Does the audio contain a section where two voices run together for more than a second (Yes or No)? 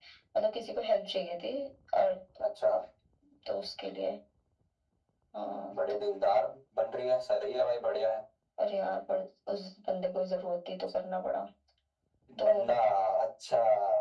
No